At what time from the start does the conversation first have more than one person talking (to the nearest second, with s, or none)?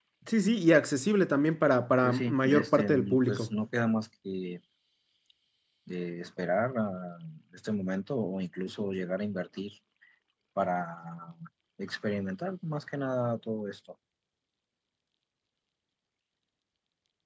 2 s